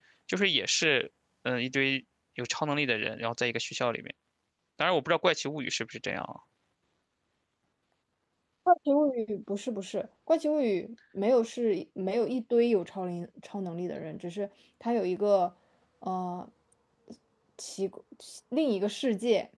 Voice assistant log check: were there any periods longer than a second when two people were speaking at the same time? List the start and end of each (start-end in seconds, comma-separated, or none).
none